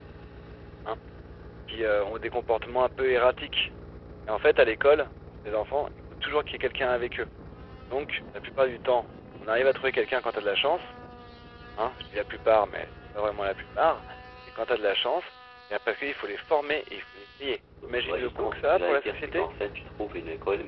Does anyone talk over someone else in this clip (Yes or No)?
Yes